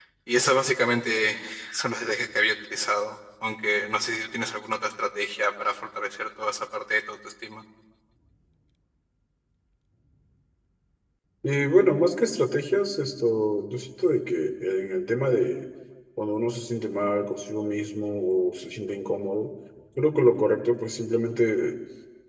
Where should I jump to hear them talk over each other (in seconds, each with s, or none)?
none